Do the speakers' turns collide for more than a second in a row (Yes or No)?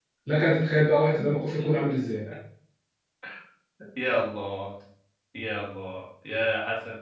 No